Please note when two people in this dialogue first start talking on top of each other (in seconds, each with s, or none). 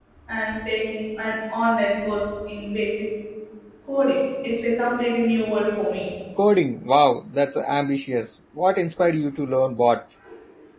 none